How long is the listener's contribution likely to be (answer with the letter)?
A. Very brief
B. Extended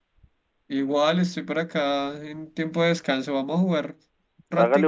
B